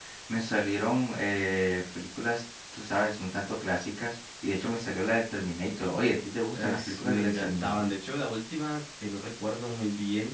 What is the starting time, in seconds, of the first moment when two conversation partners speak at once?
6.5 s

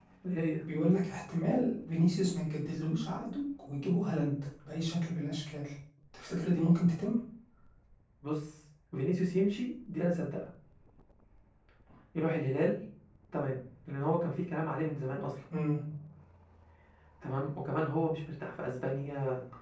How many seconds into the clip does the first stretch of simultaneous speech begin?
none

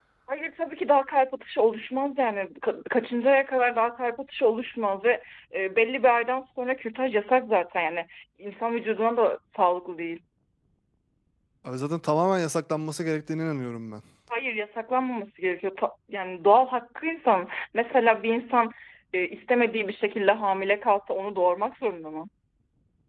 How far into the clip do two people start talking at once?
none

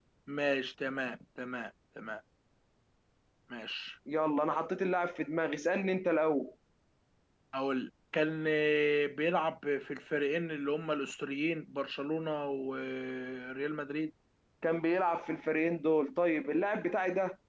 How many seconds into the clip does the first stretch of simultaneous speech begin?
none

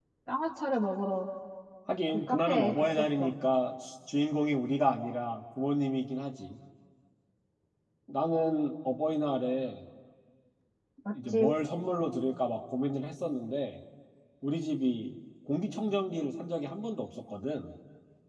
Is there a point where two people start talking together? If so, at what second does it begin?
2.1 s

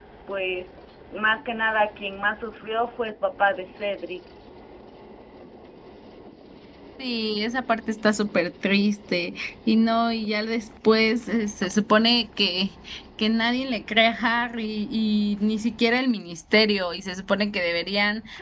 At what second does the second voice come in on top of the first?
none

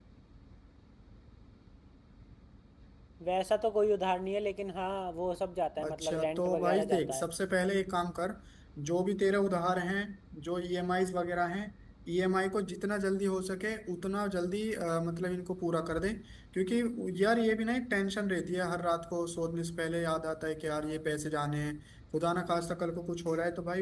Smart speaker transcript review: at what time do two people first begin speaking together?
5.8 s

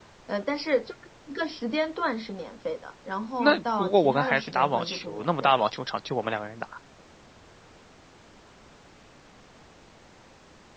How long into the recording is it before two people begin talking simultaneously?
3.4 s

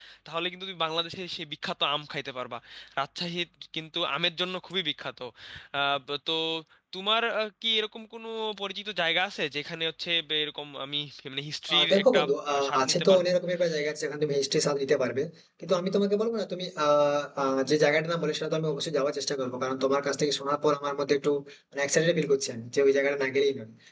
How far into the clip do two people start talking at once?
11.7 s

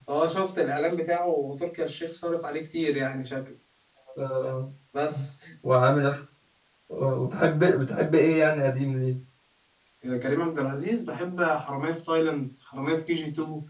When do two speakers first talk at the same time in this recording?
none

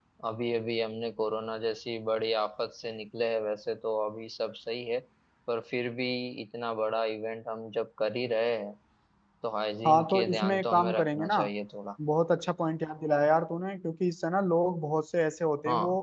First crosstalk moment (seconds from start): 9.9 s

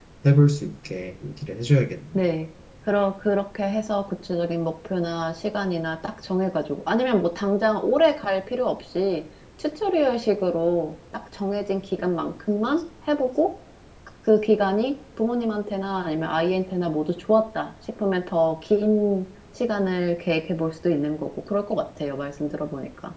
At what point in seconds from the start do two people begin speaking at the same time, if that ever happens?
none

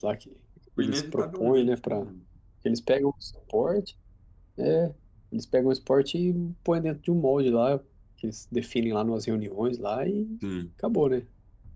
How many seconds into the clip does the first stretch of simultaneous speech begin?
0.8 s

